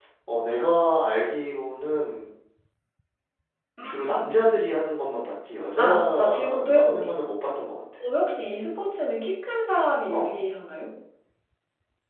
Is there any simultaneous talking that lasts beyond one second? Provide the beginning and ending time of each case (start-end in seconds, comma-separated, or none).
5.8-7.2